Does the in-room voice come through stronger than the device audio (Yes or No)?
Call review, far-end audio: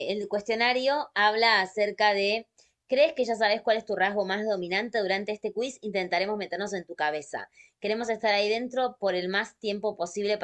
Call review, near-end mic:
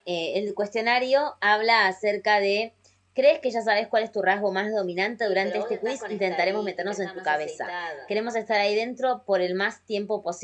No